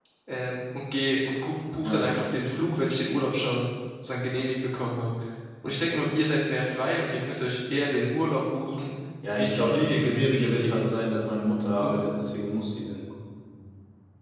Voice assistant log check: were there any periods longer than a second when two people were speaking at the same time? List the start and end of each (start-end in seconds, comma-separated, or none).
9.3-10.8